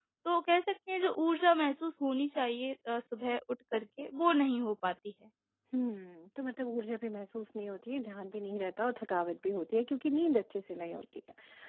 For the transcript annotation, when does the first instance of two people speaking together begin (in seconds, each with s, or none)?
none